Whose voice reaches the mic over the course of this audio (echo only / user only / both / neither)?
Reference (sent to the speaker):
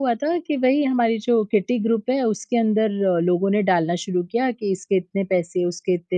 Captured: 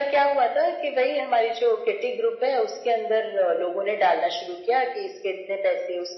echo only